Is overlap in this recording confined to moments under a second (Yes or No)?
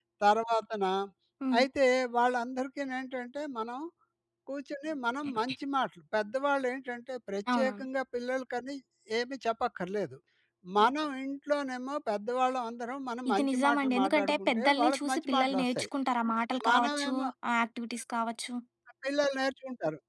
No